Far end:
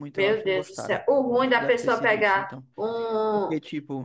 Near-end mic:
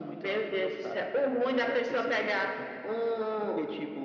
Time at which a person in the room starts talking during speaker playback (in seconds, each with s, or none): none